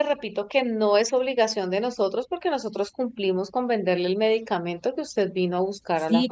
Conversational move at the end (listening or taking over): taking over